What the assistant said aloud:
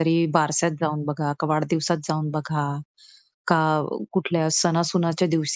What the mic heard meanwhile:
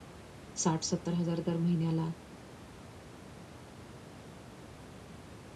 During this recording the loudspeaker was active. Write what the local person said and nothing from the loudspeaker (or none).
60,000-70,000 दर महिन्याला